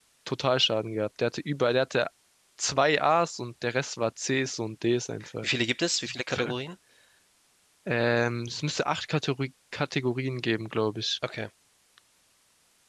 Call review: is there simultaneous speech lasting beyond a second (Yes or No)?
No